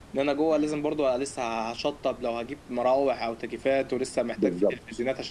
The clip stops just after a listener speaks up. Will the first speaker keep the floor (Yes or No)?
Yes